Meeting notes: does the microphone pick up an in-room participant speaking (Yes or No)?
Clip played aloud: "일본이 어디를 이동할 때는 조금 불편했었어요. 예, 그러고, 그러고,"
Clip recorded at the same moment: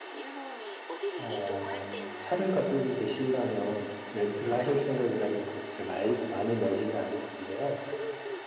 Yes